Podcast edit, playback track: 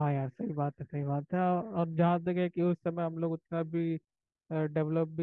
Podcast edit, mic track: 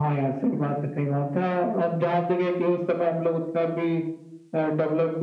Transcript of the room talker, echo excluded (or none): none